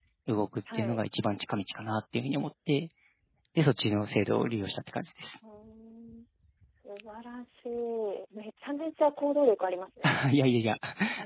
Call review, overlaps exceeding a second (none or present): none